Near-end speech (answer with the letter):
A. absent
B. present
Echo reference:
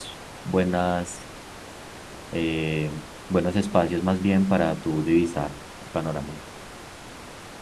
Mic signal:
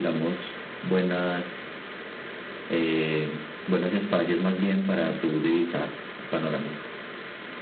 A